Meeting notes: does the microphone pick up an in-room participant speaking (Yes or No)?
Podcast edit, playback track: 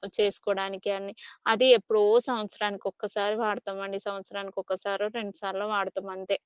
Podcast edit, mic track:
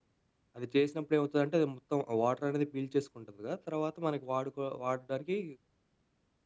Yes